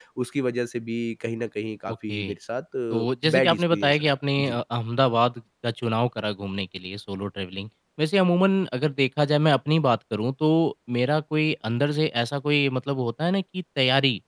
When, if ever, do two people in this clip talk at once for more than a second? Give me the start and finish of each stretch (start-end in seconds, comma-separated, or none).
3.4-4.6